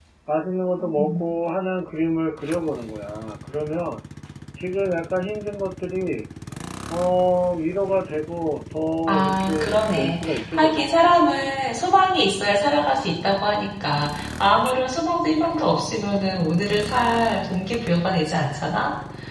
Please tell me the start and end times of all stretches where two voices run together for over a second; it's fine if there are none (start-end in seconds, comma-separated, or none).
9.1-11.0